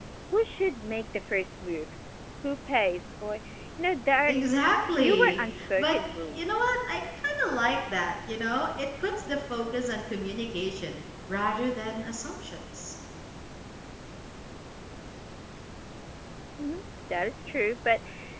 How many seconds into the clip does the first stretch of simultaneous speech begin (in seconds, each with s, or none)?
5.0 s